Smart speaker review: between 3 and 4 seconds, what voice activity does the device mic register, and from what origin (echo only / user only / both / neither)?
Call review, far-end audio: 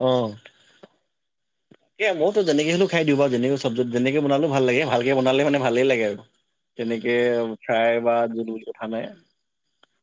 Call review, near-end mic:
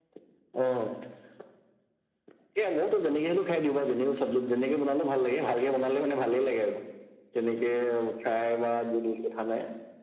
echo only